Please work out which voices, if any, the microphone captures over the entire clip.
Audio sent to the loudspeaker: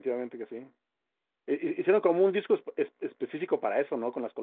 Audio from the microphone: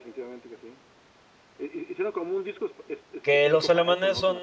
both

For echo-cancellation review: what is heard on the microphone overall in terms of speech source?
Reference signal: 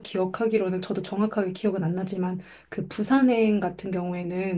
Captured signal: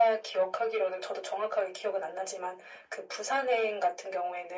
echo only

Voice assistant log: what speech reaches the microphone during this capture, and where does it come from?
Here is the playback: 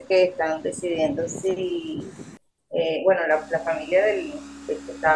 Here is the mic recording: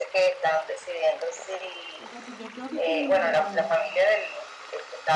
both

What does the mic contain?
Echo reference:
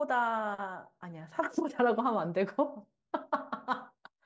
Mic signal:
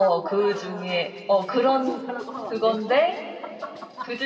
both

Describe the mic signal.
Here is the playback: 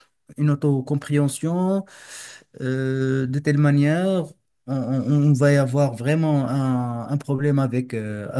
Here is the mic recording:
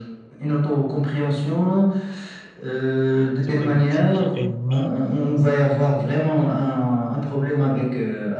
both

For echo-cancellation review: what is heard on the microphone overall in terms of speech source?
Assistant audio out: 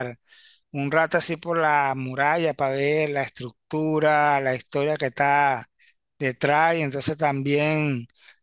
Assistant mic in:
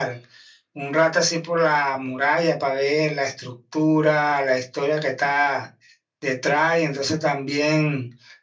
echo only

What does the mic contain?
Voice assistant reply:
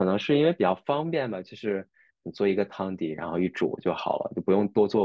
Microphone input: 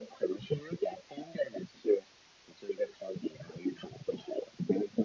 echo only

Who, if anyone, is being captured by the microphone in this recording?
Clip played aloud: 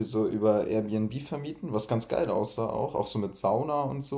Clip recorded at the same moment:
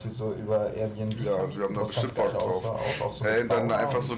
both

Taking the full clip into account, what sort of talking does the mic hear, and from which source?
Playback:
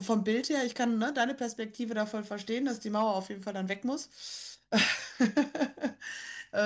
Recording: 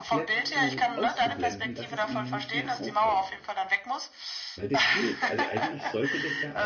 both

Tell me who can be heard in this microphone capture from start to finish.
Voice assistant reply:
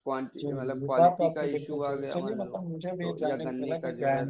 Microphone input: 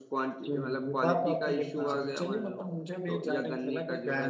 both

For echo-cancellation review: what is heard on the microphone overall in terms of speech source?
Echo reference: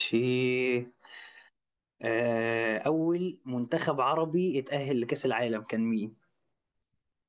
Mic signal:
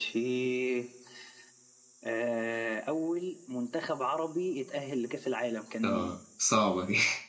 both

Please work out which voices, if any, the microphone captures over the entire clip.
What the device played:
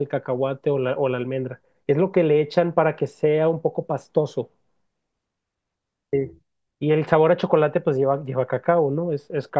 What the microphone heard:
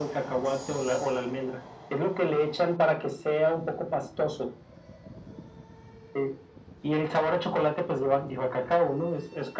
echo only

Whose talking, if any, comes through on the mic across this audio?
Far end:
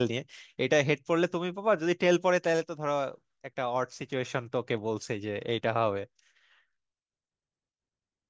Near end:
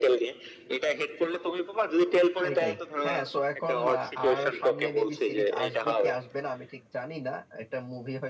both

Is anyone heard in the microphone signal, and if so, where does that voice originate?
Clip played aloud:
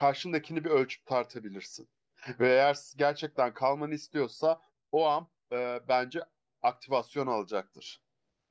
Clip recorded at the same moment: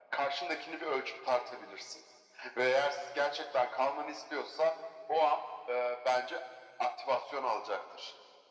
echo only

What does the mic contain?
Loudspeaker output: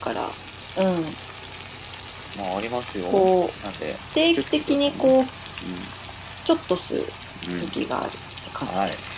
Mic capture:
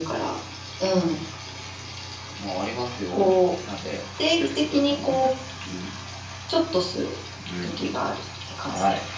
echo only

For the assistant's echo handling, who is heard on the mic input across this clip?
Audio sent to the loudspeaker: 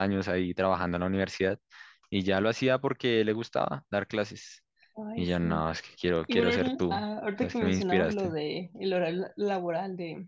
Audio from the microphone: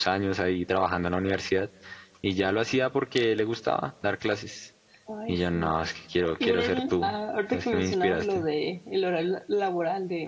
echo only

